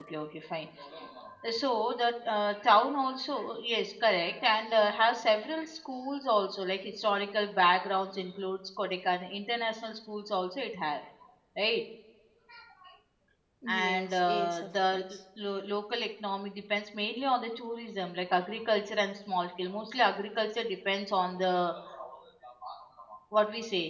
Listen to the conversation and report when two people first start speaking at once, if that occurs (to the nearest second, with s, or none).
14 s